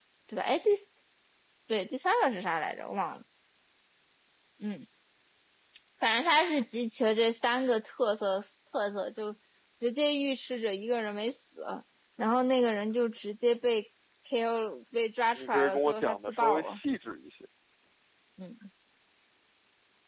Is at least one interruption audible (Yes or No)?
Yes